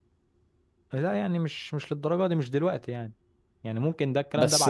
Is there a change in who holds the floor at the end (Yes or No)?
Yes